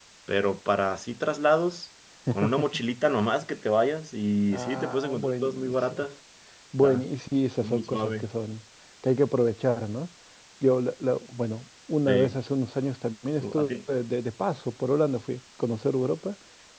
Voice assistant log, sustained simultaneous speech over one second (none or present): present